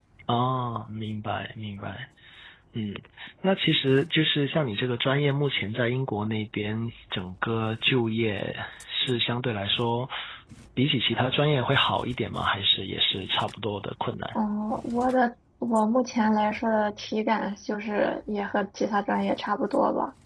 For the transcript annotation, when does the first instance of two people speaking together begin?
none

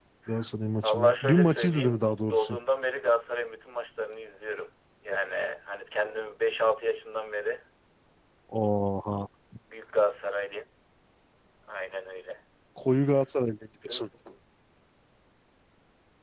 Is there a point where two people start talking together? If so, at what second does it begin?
0.8 s

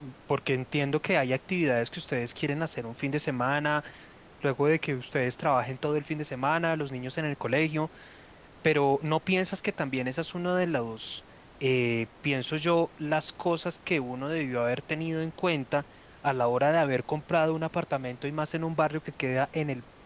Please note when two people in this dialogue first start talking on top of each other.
none

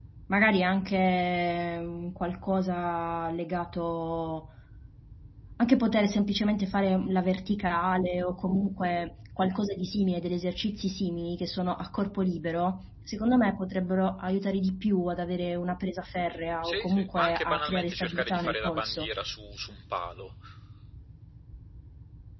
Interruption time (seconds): 16.6 s

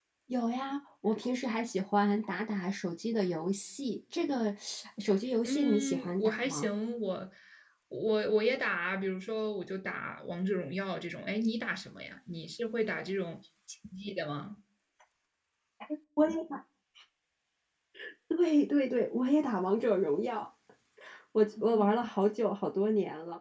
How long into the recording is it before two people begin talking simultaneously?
5.4 s

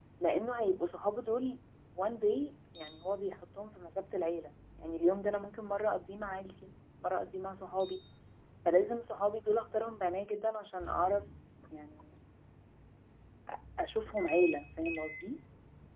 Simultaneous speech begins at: none

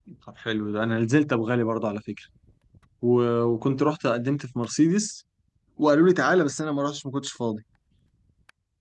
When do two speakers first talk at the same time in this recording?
none

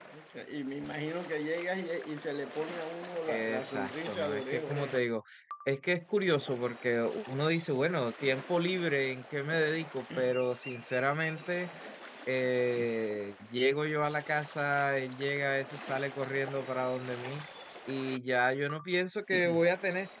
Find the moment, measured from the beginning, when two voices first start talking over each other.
3.3 s

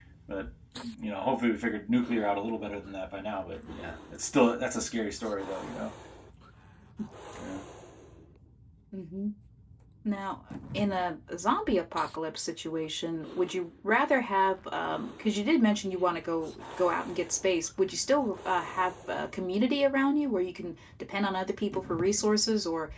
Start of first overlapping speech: none

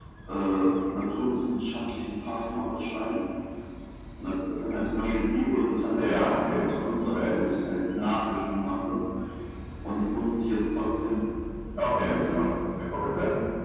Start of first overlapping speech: 5.9 s

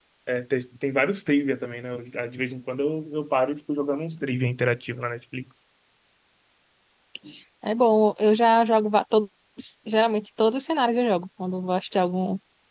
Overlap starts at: none

